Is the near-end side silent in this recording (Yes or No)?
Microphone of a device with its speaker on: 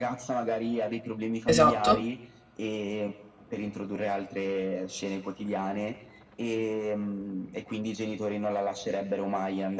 No